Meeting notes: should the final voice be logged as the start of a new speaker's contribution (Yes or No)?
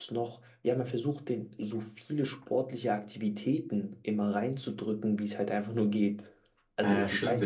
Yes